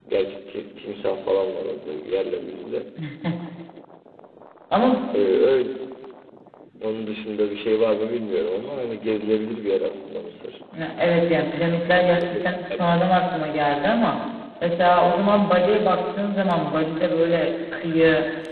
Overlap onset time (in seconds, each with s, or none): none